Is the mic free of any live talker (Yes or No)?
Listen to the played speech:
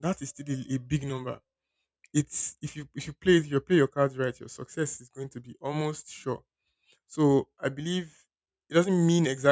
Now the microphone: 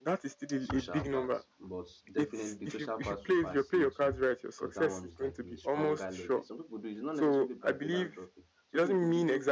No